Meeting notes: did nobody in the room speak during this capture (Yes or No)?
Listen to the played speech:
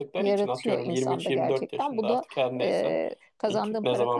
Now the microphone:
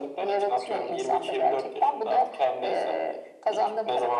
Yes